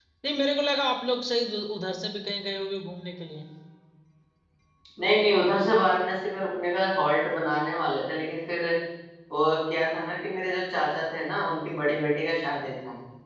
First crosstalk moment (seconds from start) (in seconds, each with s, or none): none